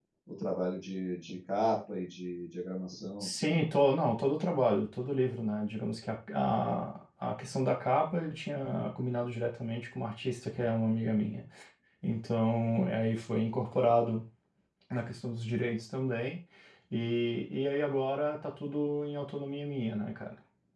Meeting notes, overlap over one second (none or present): none